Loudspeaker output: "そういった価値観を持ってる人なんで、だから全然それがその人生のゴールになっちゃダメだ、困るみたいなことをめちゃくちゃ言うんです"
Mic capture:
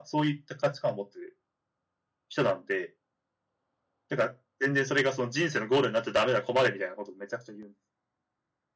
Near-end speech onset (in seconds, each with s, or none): none